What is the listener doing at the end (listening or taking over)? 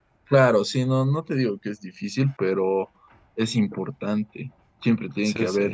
listening